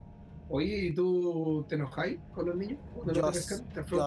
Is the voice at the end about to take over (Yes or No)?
Yes